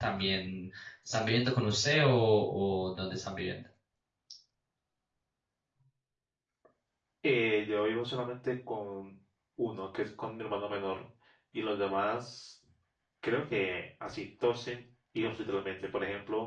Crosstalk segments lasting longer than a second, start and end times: none

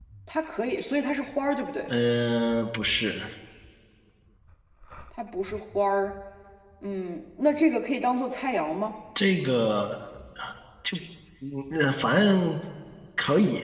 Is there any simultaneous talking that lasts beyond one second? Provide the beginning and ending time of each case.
none

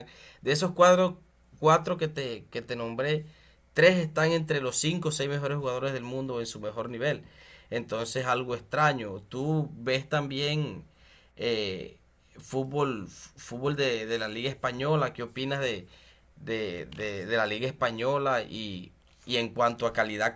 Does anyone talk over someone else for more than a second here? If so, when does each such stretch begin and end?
none

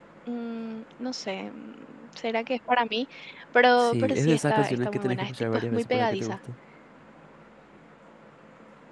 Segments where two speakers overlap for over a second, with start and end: 3.8-6.4

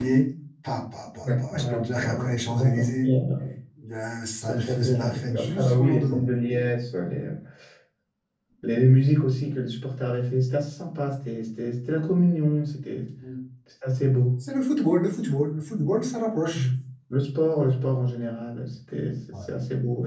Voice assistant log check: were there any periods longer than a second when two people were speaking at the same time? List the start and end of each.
1.2-3.1, 4.4-6.2

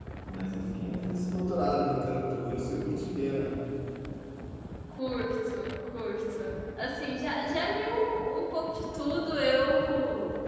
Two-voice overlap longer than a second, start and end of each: none

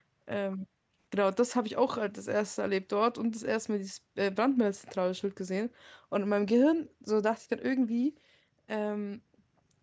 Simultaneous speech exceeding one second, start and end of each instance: none

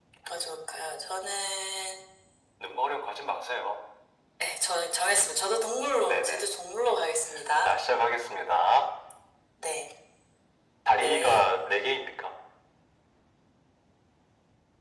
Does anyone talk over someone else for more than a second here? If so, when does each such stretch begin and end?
none

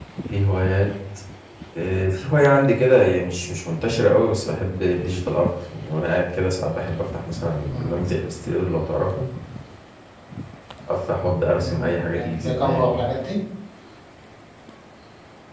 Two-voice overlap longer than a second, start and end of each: 11.6-13.0

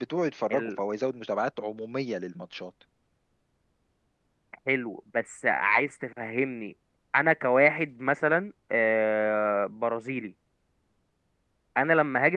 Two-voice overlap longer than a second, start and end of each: none

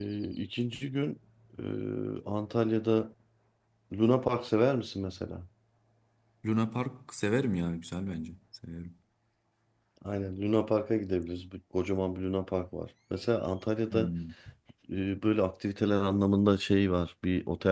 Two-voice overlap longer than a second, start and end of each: none

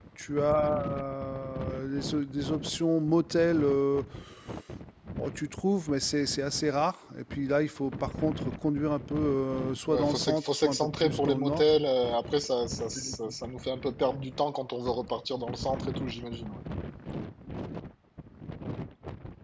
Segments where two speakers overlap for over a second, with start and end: 9.9-11.6

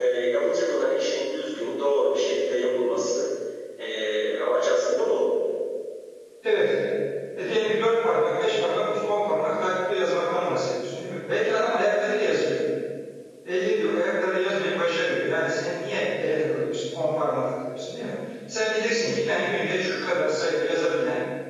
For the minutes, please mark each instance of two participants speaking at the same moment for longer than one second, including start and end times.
none

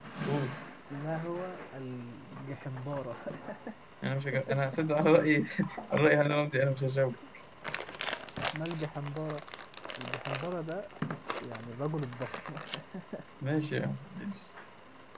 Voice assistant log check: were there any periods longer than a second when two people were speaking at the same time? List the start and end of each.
none

